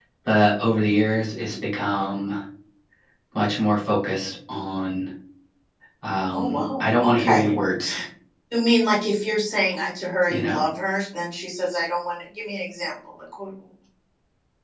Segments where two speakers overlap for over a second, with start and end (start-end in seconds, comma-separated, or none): 6.3-7.5